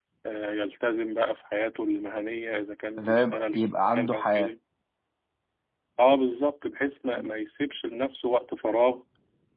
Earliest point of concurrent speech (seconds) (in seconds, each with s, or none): 3.0 s